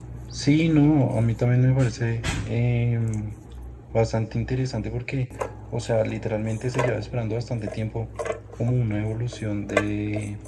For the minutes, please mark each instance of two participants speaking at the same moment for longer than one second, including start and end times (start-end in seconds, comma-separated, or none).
none